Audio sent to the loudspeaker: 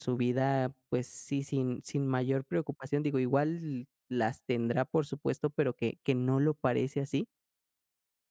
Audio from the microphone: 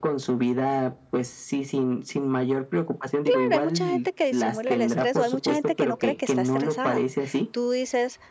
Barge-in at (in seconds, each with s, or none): 3.2 s